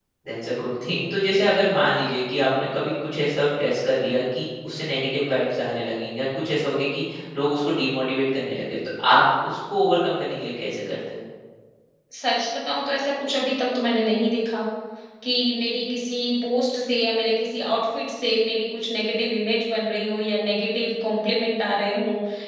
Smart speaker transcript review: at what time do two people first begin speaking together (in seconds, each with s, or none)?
none